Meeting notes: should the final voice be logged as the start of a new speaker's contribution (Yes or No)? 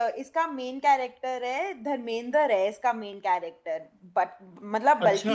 No